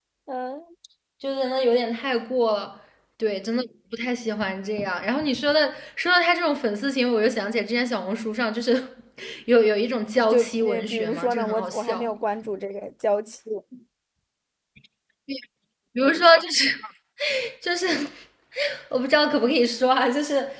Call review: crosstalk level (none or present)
present